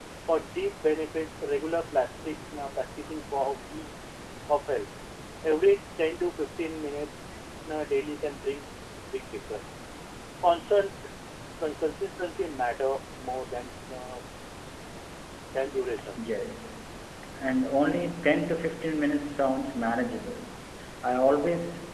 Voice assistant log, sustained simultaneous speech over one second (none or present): none